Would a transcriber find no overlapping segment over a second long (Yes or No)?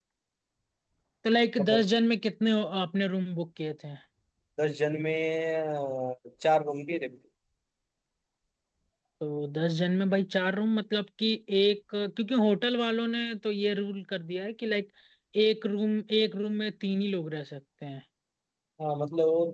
Yes